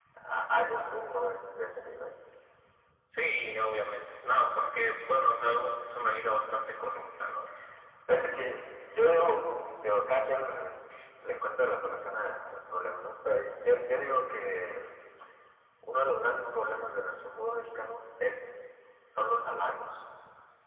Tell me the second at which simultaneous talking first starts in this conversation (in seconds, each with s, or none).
none